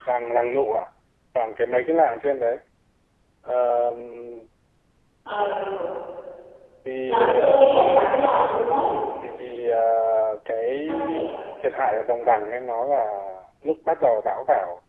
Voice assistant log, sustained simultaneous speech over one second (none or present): present